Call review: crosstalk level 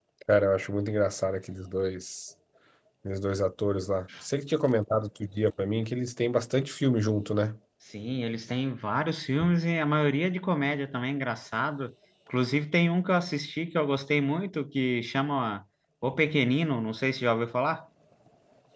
none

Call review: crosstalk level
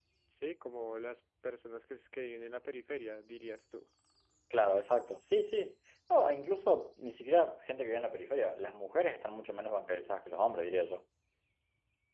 none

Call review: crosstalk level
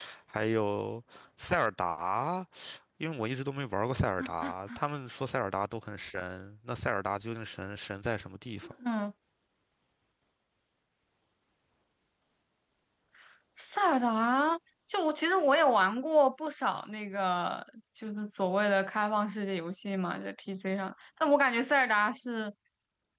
none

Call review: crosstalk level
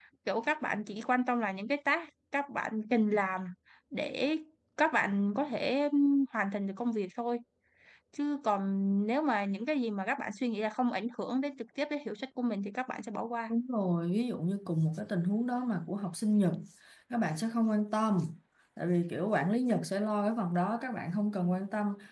none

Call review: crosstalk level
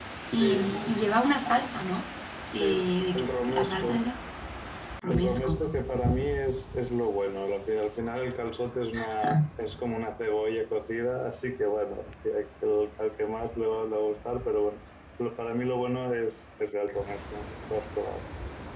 present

